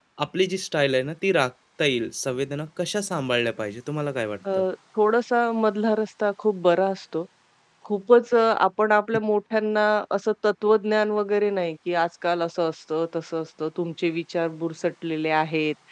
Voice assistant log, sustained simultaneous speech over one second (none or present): none